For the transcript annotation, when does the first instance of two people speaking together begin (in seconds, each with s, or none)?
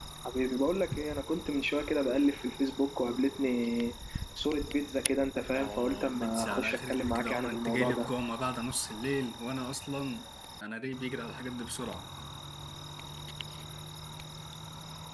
5.5 s